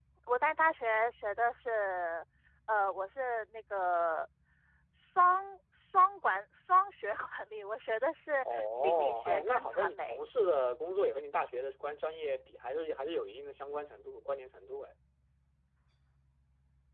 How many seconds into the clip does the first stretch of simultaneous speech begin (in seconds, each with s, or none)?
8.4 s